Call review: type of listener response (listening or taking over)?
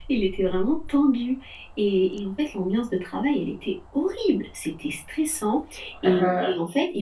listening